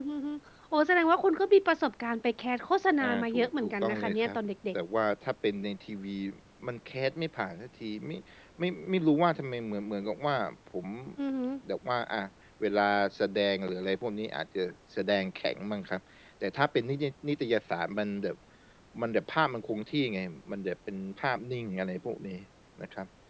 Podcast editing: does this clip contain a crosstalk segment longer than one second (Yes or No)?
Yes